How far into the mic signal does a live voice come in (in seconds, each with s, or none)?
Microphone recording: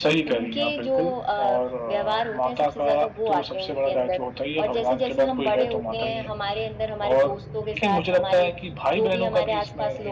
none